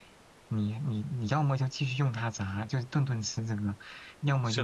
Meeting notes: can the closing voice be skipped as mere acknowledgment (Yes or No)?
Yes